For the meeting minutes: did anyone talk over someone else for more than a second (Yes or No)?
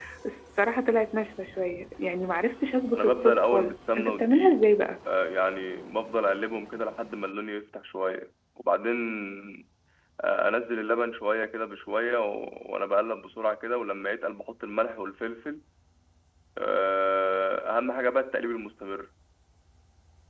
Yes